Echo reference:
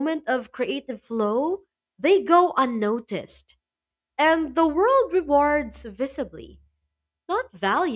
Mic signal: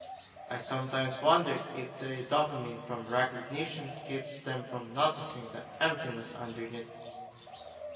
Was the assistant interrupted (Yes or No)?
Yes